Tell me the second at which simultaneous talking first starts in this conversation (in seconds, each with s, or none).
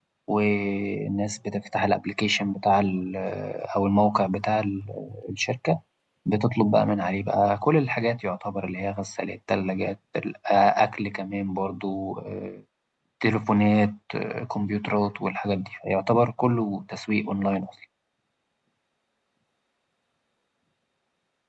none